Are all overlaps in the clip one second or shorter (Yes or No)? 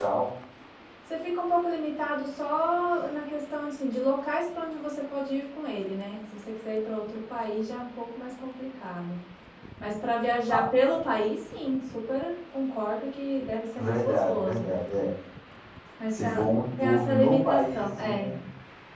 No